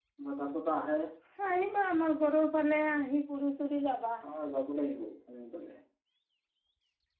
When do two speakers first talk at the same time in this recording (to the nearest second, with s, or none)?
none